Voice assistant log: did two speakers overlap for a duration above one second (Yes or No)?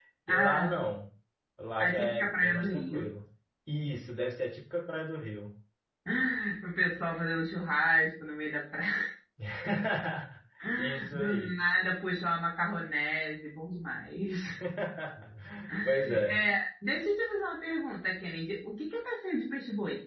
Yes